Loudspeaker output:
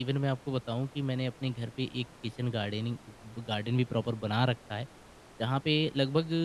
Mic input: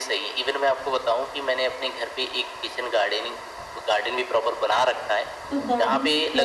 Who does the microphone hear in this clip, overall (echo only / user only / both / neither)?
both